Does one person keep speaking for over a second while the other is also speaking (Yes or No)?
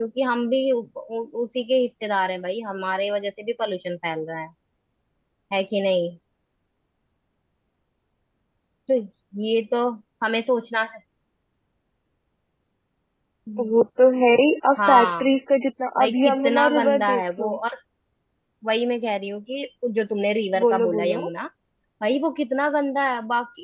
Yes